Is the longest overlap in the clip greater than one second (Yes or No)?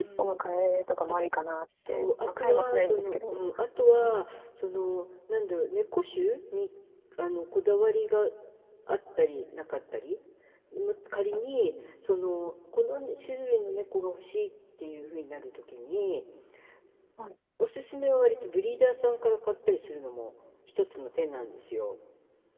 Yes